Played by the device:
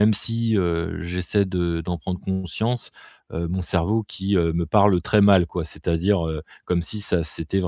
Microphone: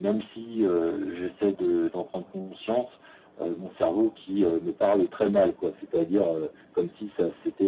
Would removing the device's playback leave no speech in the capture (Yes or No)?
Yes